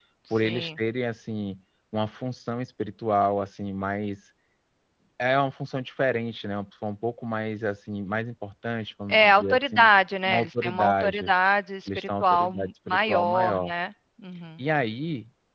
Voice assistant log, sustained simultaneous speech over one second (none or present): present